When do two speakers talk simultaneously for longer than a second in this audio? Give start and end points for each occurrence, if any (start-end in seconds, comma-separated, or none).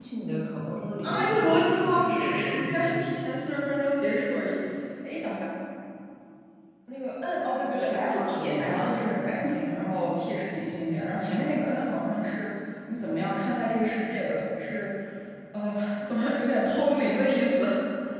1.0-3.0, 7.6-9.1